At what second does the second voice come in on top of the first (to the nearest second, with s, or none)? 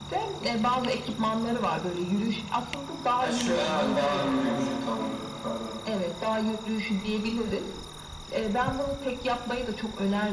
3 s